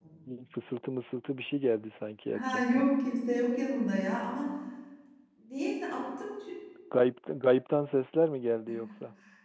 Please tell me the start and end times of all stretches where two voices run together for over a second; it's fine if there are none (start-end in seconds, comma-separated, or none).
none